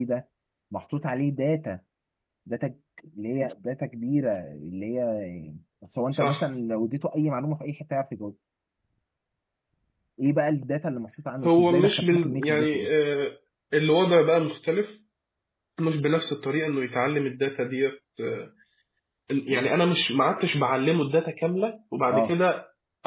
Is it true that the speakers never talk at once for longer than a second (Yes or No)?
No